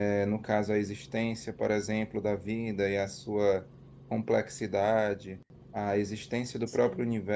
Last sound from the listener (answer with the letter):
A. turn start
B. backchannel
B